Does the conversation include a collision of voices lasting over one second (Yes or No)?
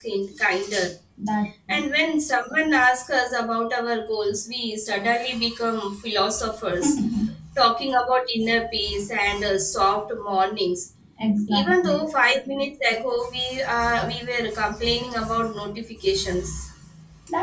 No